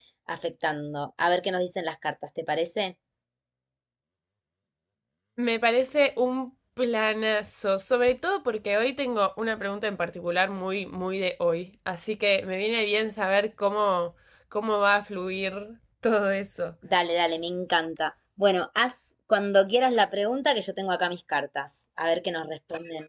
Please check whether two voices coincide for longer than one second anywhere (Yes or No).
No